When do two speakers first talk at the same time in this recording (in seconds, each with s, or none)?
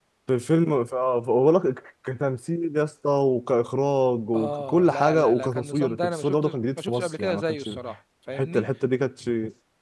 4.3 s